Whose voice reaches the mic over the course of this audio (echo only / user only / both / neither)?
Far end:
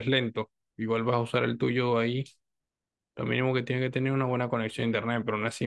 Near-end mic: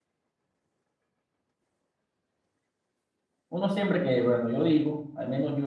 user only